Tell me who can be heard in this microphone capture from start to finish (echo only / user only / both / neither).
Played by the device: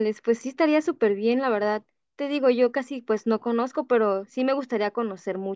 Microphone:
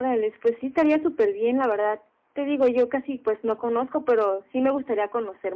echo only